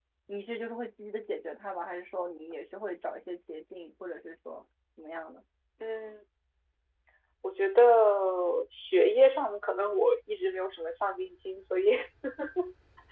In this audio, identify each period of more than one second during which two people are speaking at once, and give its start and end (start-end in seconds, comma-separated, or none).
none